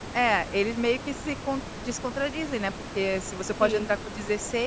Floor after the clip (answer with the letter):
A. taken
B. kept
B